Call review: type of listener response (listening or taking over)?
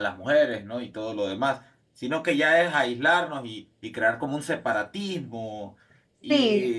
listening